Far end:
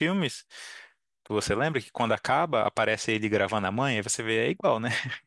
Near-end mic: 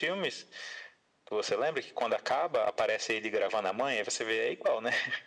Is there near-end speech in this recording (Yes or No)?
No